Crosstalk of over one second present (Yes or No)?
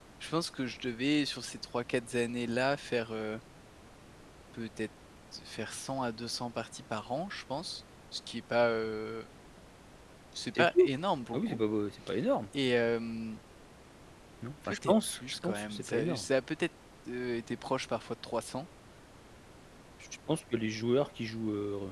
Yes